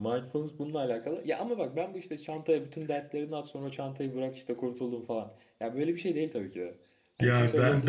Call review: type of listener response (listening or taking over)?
taking over